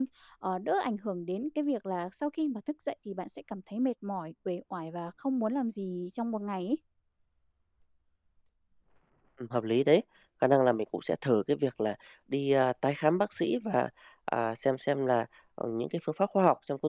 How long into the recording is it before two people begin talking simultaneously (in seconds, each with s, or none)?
none